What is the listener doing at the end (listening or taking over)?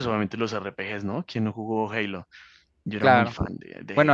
taking over